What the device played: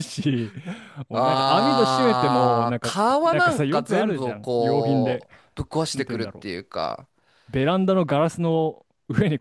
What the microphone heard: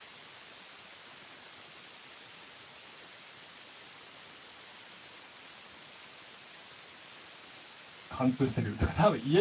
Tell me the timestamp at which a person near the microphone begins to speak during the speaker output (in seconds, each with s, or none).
8.1 s